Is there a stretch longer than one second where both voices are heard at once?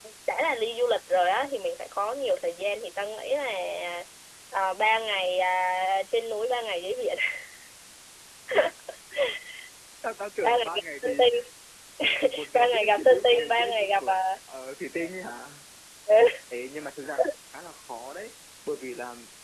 Yes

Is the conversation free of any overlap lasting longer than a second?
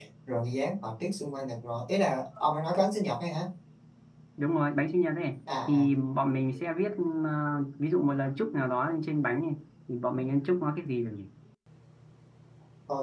Yes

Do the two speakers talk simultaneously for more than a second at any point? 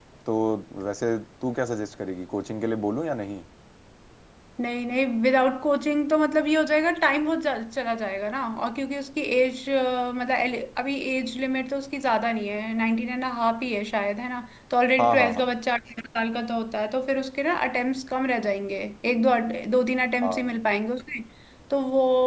No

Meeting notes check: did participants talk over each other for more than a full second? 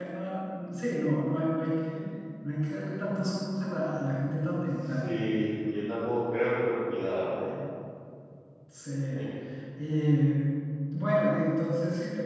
No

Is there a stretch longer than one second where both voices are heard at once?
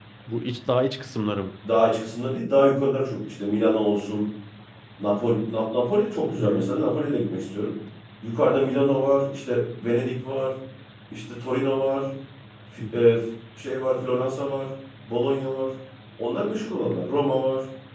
No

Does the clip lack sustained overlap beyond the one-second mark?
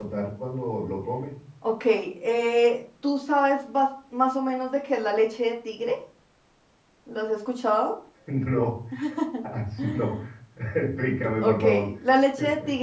Yes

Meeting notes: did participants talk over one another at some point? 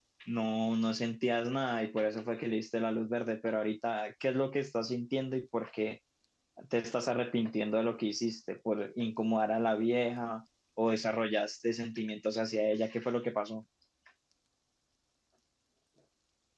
No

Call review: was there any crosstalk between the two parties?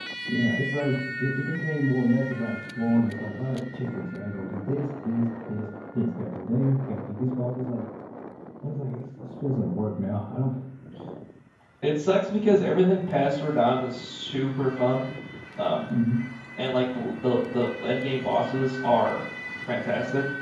No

